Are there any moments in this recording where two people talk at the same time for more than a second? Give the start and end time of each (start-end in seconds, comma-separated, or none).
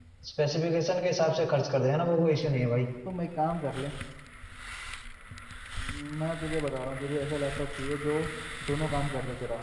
none